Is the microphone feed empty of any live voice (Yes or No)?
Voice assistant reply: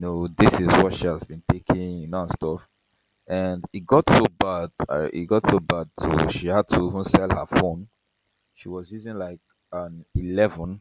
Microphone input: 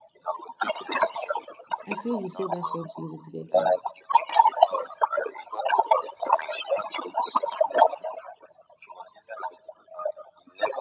No